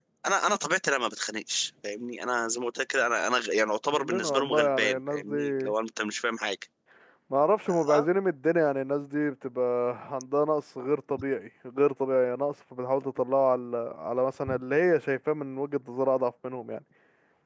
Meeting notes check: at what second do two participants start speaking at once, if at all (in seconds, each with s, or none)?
3.9 s